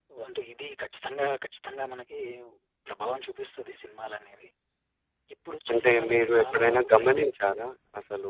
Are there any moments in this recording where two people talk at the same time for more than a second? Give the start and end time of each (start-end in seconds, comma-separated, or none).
5.7-7.1